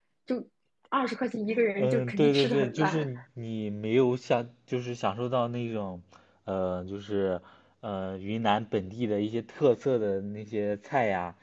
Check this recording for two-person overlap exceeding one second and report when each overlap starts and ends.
1.8-3.1

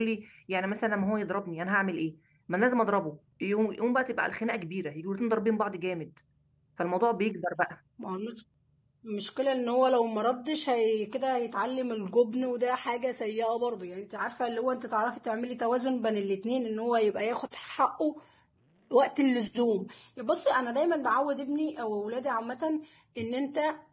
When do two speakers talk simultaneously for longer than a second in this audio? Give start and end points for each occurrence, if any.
none

